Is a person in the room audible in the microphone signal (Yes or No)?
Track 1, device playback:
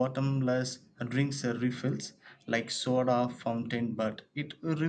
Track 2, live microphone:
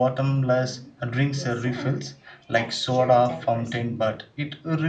Yes